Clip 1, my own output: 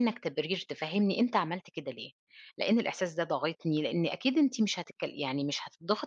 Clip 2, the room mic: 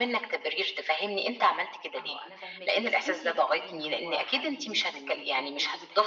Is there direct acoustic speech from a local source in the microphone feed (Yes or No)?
Yes